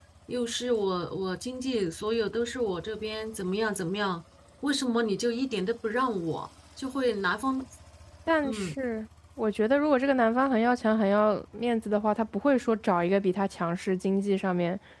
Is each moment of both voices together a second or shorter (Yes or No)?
Yes